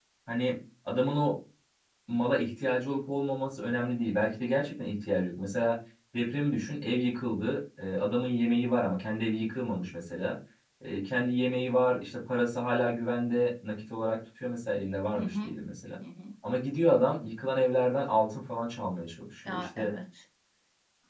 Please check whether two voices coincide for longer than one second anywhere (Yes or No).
No